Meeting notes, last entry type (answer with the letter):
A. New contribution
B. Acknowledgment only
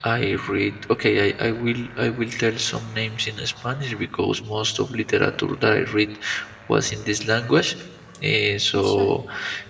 B